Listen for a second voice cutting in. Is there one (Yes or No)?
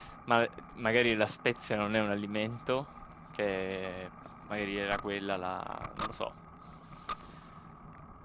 No